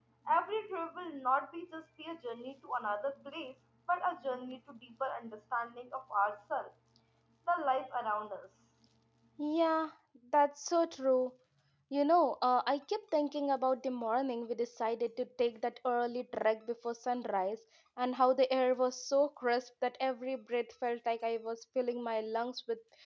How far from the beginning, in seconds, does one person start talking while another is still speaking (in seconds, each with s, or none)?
none